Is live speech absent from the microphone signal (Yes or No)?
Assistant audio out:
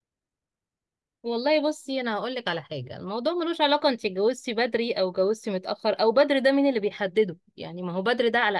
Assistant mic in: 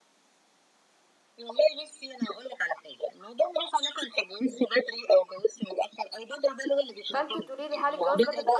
No